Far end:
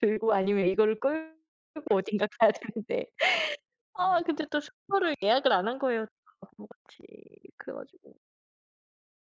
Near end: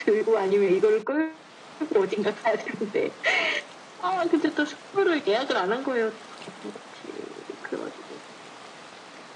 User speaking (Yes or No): No